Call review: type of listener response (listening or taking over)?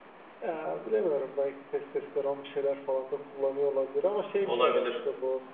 listening